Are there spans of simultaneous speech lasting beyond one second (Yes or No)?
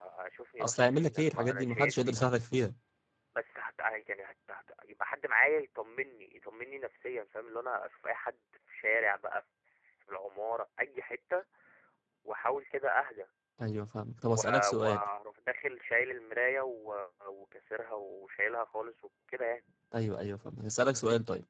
Yes